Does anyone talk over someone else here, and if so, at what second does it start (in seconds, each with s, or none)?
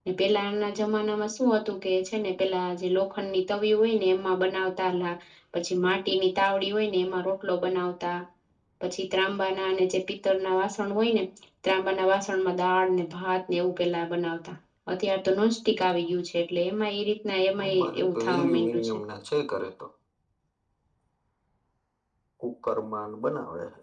17.6 s